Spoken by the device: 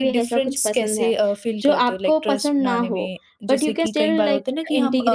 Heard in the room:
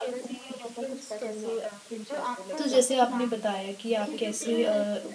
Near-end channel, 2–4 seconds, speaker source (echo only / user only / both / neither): both